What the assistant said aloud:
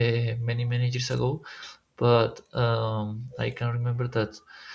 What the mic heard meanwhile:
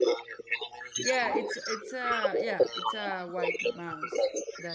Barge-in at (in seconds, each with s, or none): 1.0 s